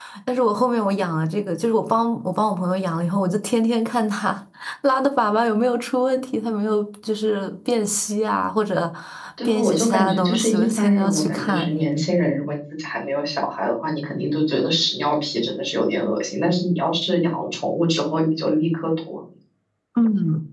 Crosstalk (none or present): present